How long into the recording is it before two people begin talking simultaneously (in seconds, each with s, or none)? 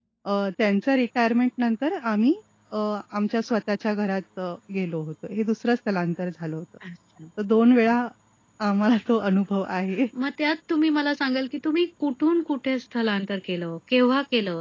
none